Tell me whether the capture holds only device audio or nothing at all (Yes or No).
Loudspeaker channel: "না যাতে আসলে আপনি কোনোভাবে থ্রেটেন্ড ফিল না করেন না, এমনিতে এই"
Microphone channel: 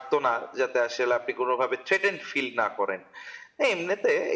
Yes